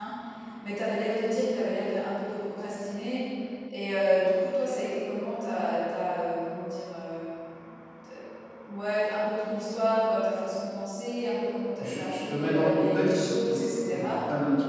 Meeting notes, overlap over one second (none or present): present